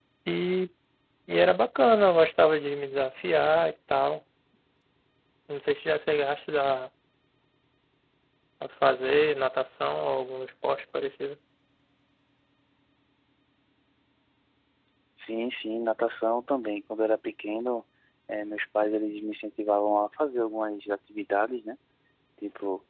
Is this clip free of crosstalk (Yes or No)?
Yes